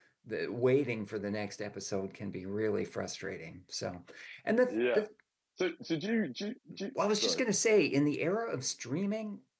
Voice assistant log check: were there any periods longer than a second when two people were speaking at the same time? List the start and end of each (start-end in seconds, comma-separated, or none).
none